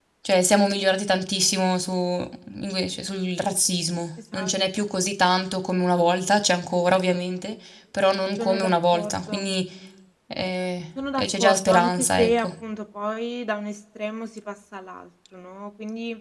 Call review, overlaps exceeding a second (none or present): present